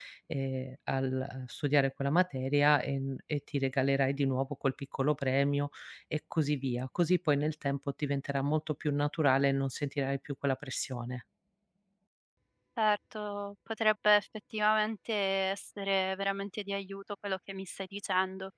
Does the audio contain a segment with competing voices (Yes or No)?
No